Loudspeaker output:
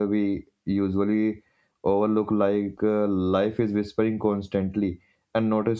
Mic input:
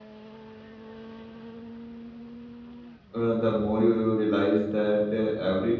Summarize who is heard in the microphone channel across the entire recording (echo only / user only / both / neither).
user only